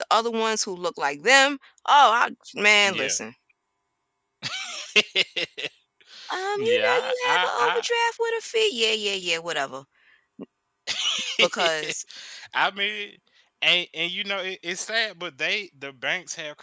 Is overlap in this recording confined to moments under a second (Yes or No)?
No